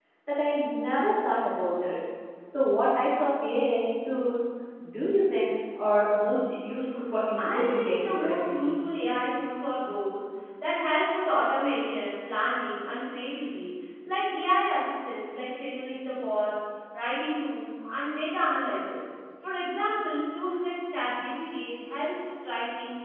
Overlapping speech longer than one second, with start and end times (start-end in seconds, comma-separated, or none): 7.4-8.8